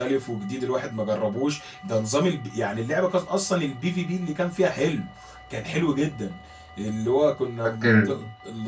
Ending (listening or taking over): listening